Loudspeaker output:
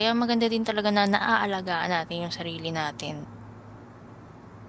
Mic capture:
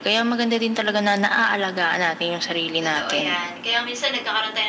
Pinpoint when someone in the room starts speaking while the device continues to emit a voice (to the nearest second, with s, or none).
3 s